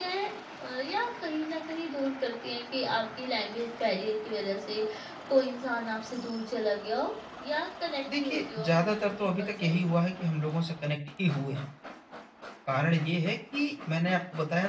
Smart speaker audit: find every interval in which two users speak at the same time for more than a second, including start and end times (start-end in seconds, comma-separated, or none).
8.2-9.8